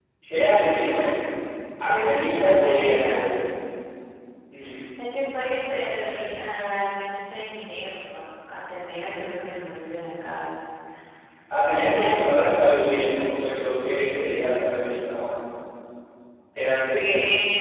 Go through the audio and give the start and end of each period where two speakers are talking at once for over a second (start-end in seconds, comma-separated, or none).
1.8-3.2